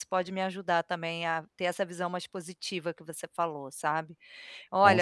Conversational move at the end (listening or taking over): listening